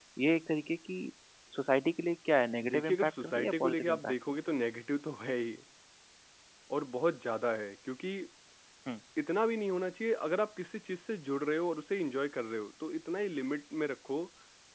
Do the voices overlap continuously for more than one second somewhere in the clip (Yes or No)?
Yes